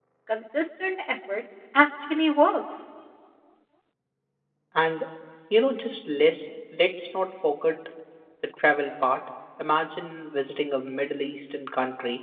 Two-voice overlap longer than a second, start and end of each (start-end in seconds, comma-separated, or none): none